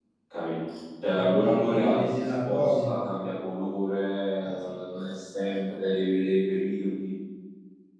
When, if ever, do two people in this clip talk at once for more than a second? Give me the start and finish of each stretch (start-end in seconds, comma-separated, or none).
1.4-3.1